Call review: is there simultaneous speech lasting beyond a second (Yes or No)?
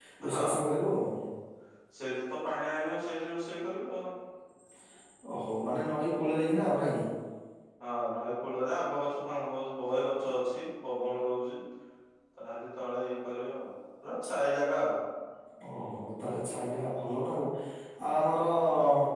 No